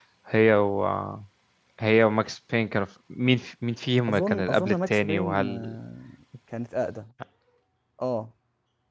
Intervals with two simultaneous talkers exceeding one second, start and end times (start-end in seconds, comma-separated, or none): 4.1-5.8